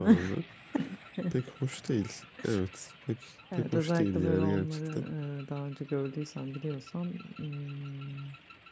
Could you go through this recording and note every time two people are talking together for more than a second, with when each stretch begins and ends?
3.5-4.8

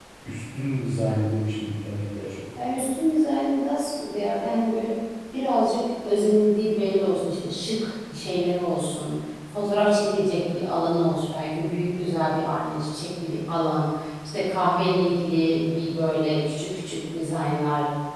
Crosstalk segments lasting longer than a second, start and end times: none

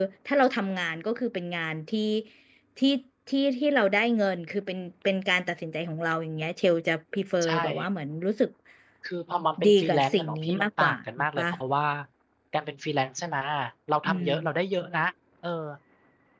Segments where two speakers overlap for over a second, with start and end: 9.6-11.4

